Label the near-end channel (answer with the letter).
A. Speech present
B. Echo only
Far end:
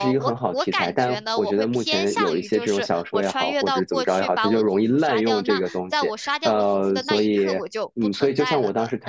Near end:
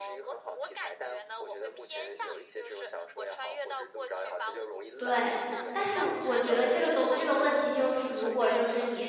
A